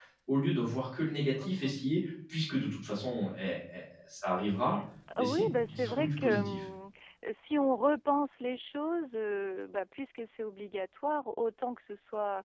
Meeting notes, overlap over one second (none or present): present